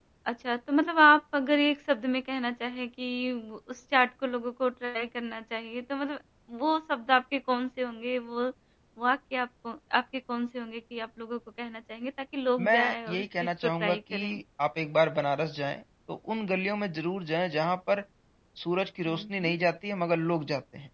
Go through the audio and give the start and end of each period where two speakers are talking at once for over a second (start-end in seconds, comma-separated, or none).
12.7-14.4